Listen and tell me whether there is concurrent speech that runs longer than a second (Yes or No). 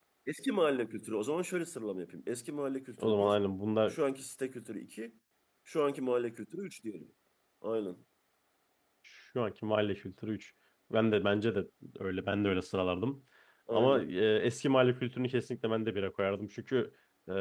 No